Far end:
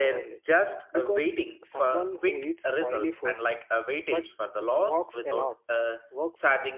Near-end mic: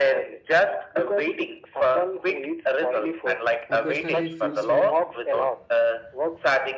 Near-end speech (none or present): present